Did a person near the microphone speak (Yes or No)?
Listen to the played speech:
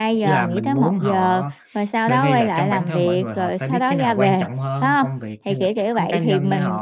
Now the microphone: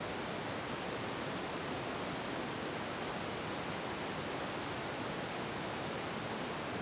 No